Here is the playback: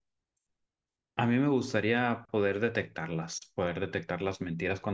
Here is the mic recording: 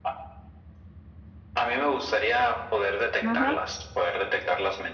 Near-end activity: present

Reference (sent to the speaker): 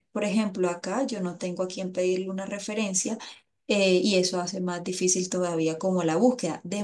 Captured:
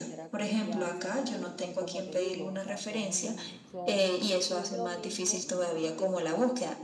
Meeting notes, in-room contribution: present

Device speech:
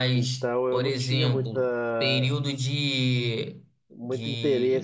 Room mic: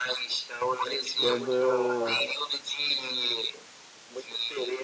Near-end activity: present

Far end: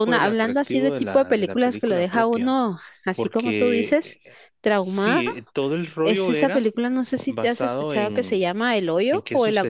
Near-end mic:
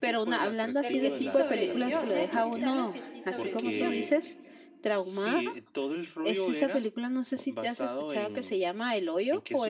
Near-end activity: present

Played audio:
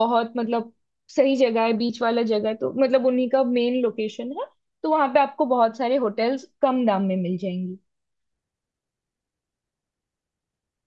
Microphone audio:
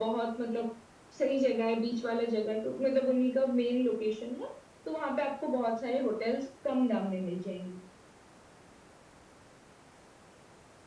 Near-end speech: none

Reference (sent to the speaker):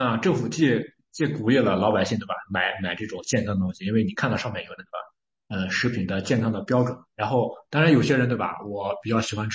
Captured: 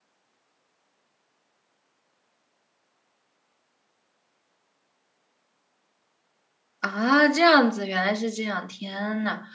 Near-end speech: present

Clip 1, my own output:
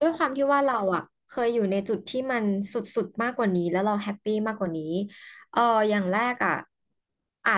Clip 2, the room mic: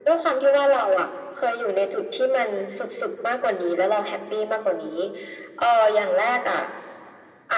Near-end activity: none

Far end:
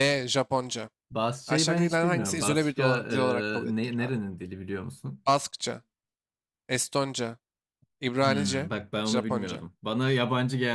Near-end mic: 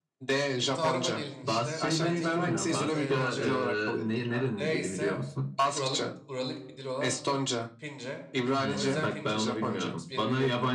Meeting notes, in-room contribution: present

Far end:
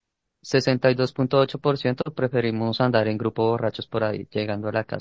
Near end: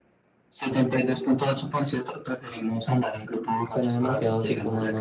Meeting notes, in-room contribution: present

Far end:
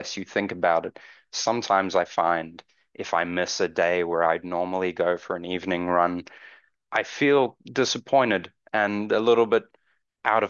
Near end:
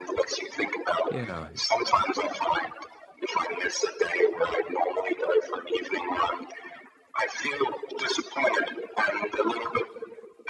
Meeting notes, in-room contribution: present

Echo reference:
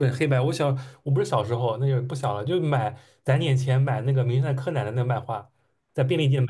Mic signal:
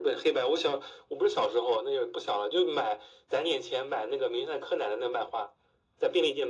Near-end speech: none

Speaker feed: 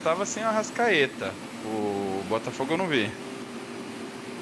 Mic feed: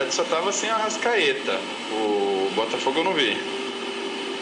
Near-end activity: none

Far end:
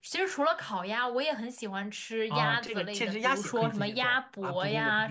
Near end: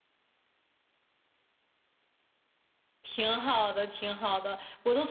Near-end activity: present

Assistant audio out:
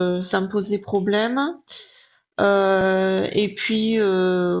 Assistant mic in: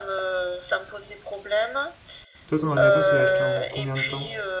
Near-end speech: present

